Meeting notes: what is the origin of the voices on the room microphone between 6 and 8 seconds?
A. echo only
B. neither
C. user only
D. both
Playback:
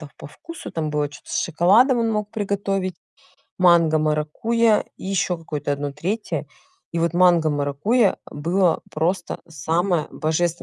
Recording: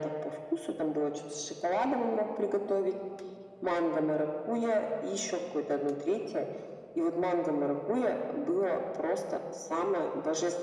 A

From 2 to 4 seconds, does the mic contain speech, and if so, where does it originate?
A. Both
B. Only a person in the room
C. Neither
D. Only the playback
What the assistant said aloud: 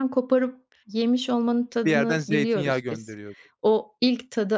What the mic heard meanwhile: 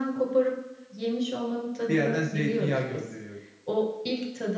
D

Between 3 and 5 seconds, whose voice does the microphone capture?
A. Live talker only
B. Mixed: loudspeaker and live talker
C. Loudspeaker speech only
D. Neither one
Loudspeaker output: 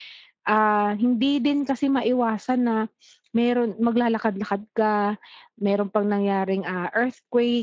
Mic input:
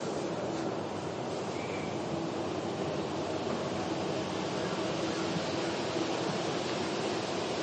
D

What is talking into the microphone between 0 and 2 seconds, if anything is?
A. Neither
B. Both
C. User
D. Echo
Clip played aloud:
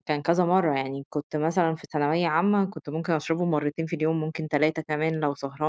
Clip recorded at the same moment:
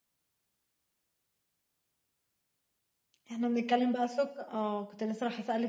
A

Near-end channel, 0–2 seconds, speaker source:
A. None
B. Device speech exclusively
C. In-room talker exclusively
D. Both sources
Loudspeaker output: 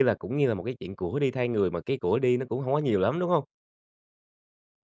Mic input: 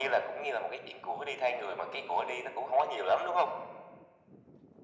B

